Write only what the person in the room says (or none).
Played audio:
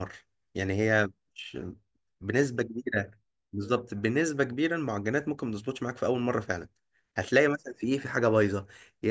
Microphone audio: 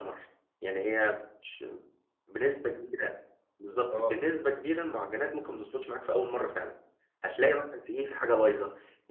اه